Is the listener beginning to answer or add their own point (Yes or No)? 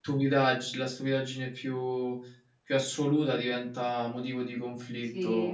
Yes